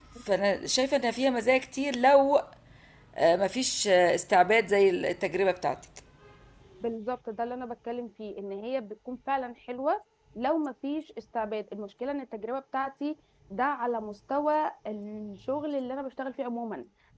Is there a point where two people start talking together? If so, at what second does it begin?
none

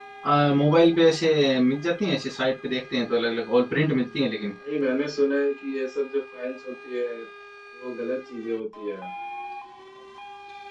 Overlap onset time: none

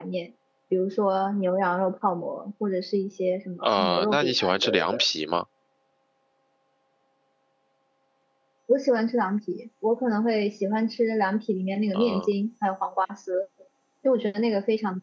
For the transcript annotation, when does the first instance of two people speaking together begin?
3.6 s

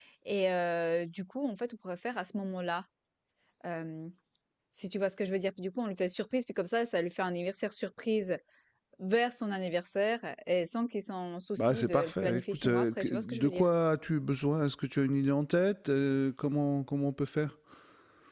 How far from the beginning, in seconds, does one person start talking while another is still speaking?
11.6 s

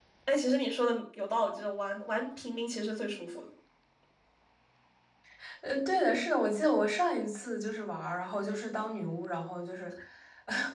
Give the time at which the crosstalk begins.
none

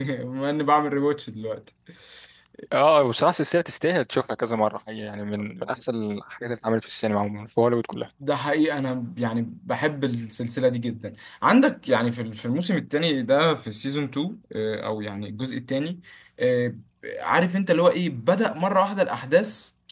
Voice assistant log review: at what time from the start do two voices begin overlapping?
none

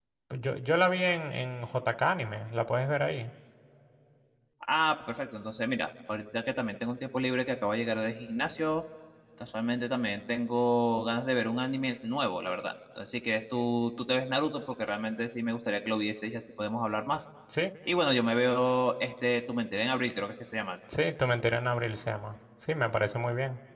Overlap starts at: none

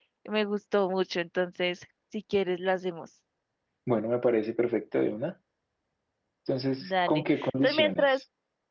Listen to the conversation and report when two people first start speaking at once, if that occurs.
6.8 s

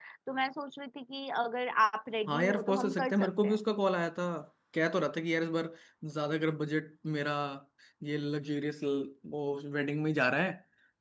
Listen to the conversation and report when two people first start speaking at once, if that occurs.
2.3 s

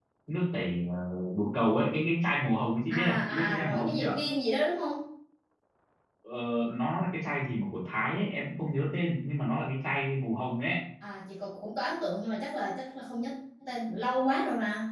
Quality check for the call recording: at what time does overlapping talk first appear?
2.9 s

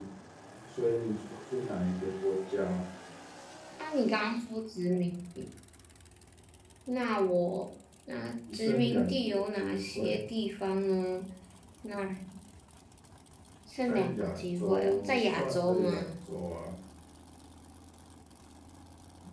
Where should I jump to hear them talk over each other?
8.5 s

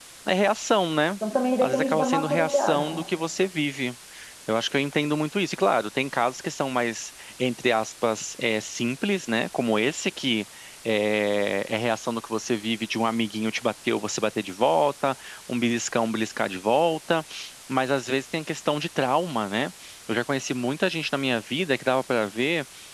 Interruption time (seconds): 1.6 s

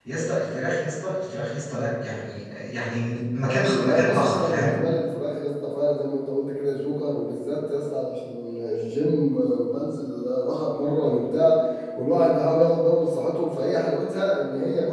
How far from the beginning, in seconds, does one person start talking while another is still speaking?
3.5 s

